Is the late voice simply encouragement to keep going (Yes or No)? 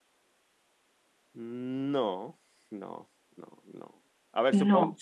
Yes